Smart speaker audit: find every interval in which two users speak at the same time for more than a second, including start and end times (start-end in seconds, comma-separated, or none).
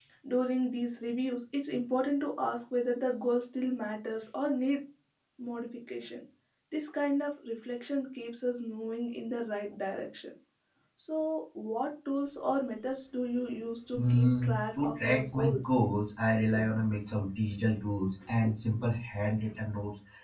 13.9-15.8